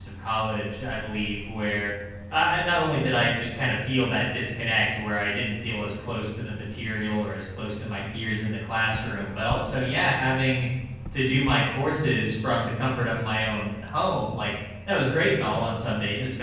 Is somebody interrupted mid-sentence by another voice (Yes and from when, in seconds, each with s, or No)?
No